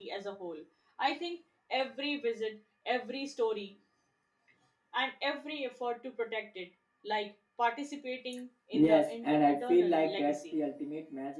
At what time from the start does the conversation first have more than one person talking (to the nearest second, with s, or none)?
9 s